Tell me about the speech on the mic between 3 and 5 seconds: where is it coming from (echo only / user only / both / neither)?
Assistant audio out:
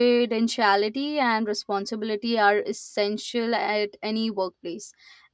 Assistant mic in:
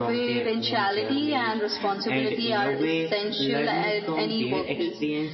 both